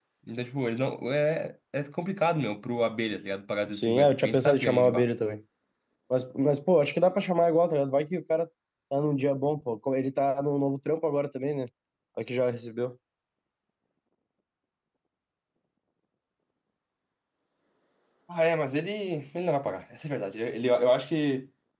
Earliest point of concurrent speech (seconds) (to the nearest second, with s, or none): 4 s